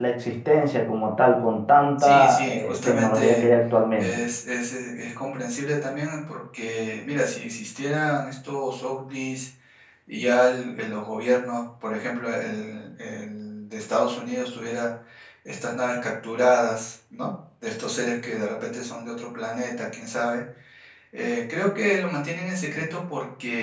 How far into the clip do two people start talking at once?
2 s

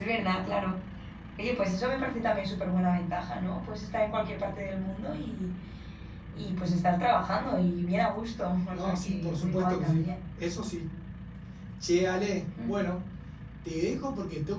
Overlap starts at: 9 s

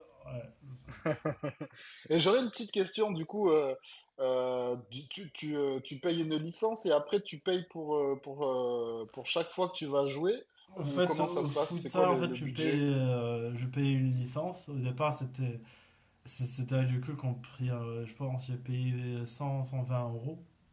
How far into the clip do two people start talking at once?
11 s

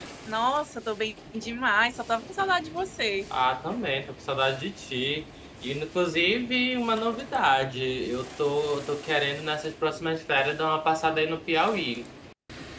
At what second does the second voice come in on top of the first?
none

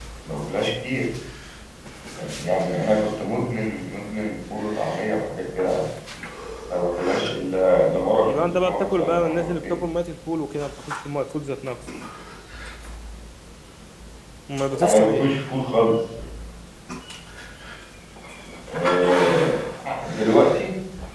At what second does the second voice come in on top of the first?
8 s

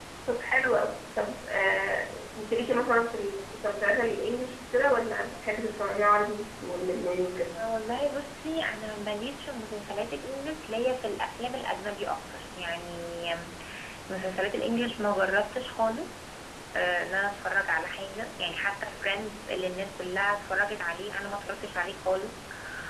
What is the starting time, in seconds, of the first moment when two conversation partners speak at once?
none

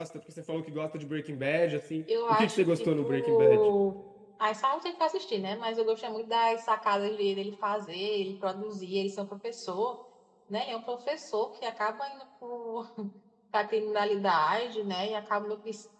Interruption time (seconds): 2 s

